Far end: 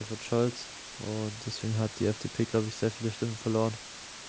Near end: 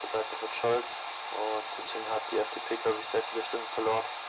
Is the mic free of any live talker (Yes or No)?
Yes